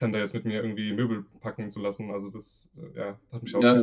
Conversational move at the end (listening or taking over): taking over